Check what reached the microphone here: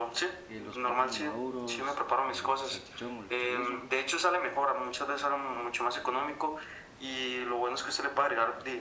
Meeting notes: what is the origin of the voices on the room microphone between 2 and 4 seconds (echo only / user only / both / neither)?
both